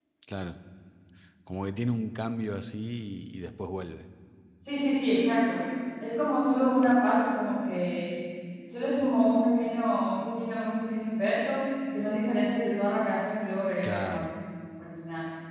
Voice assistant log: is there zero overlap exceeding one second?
Yes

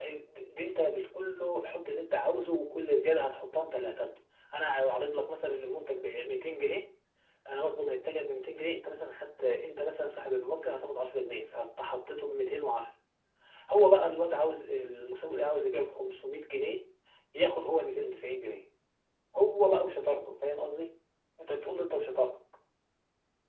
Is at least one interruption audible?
No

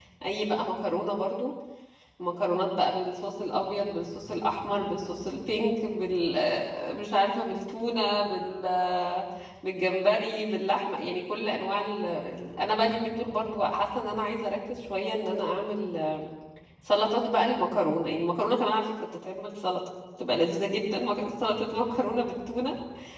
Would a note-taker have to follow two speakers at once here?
No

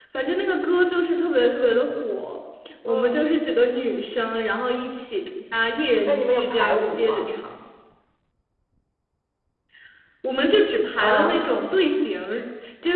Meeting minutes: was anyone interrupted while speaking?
Yes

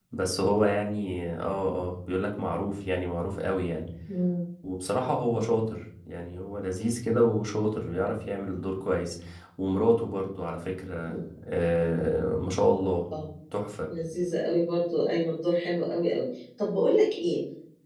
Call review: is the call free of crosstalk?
Yes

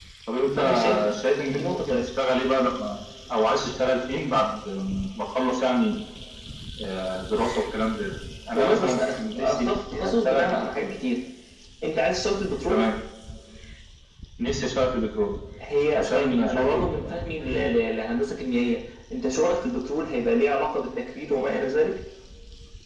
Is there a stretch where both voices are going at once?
Yes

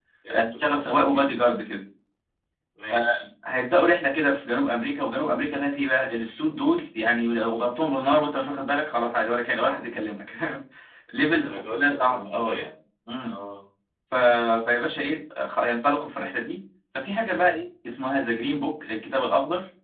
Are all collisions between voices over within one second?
No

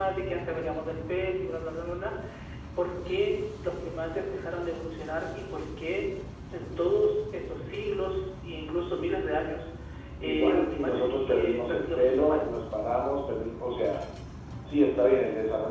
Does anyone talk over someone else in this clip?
Yes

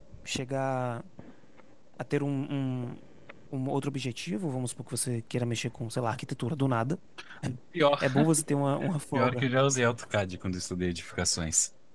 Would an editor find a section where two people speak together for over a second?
No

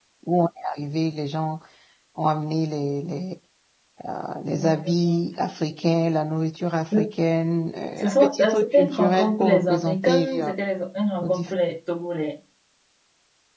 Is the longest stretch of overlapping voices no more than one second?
No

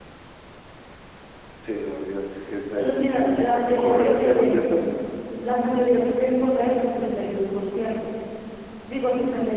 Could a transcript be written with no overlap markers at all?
No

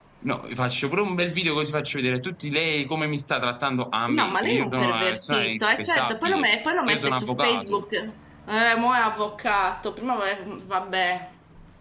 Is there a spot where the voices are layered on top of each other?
Yes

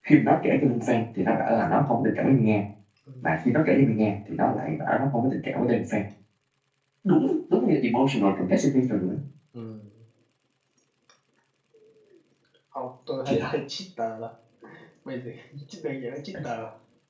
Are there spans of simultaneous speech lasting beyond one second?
No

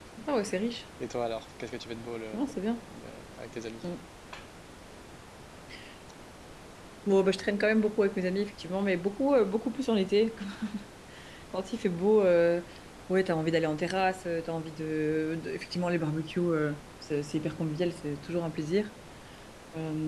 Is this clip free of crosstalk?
Yes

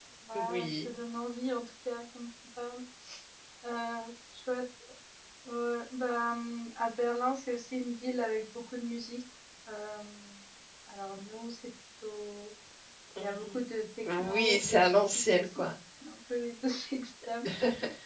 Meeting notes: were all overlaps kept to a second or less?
No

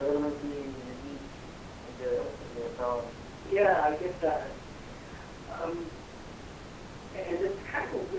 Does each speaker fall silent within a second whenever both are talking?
Yes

